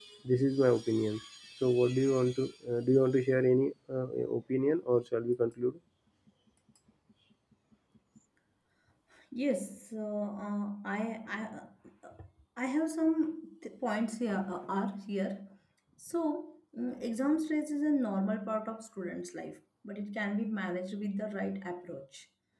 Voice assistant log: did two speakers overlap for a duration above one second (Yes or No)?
No